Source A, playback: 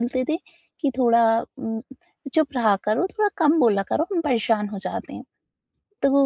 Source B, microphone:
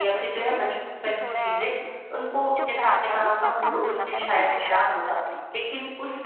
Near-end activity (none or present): present